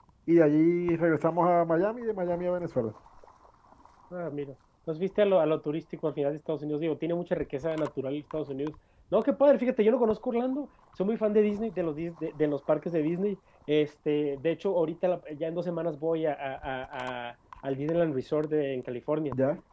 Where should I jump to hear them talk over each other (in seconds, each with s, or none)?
none